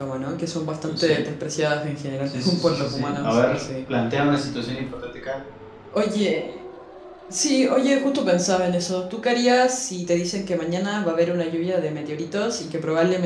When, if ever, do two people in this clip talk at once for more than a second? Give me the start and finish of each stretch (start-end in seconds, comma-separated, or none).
2.3-3.6